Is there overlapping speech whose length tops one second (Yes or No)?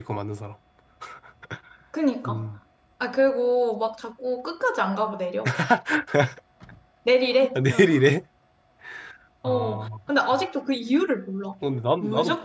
No